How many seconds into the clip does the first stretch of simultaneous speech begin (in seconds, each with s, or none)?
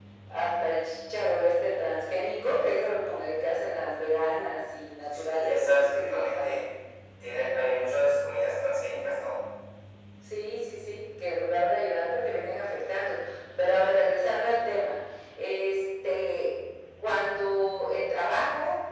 5.1 s